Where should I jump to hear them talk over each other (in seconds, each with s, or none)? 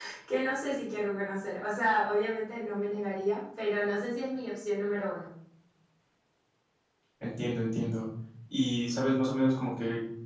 none